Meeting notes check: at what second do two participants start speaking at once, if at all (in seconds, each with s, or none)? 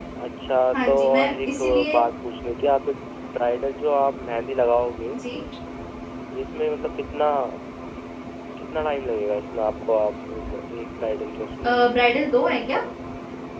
0.7 s